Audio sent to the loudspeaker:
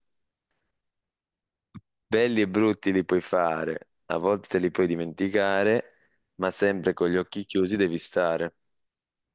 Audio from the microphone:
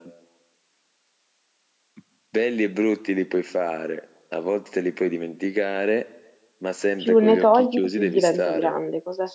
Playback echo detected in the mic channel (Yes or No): Yes